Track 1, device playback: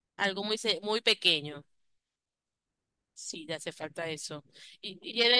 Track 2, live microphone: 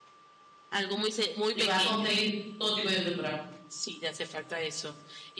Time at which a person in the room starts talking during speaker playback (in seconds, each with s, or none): 1.5 s